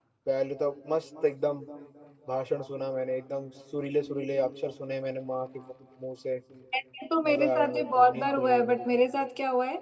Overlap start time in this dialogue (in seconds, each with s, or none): 7.3 s